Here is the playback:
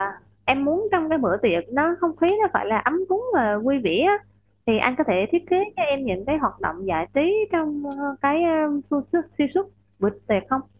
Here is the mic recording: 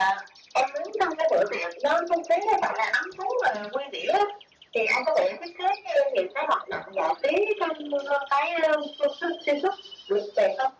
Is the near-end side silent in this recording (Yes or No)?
Yes